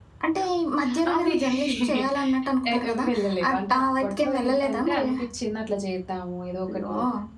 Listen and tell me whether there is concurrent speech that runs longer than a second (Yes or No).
Yes